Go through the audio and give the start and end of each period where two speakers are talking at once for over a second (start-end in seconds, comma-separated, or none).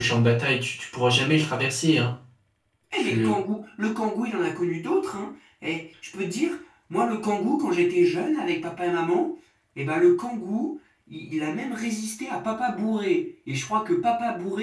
none